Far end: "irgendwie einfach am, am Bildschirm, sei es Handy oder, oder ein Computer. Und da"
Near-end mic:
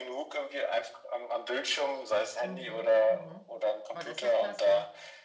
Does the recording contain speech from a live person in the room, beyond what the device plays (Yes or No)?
Yes